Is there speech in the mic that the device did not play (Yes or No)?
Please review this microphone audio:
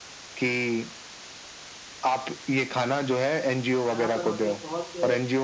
Yes